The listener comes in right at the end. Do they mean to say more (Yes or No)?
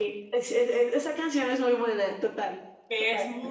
Yes